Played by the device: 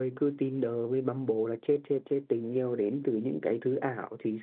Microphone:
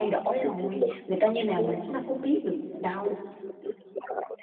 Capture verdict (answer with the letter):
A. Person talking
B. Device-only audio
A